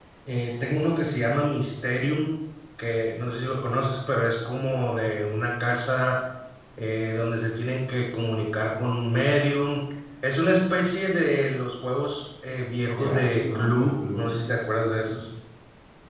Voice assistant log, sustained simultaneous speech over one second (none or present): present